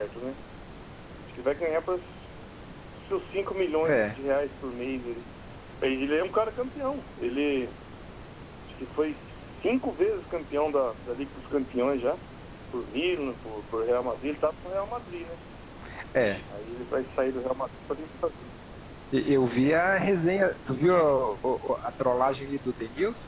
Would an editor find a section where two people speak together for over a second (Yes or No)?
No